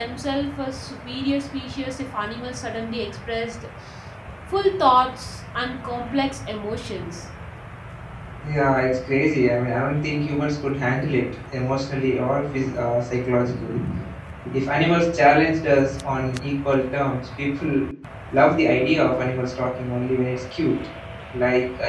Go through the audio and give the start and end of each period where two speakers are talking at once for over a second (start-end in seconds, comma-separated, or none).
none